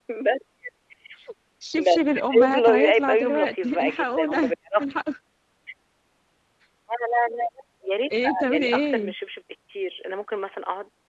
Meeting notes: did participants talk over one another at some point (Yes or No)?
Yes